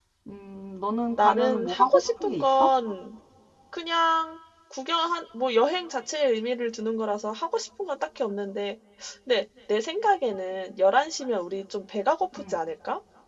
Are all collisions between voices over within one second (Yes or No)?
No